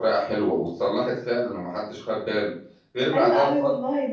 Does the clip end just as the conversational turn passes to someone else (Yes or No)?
Yes